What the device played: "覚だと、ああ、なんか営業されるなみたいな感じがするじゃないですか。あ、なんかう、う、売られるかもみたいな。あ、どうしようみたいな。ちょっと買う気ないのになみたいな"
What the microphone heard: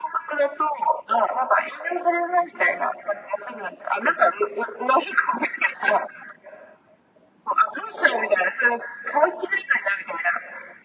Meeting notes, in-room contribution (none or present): none